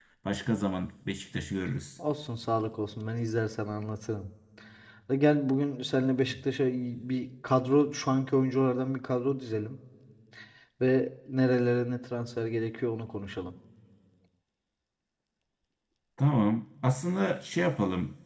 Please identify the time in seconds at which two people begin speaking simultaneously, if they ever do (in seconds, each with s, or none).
none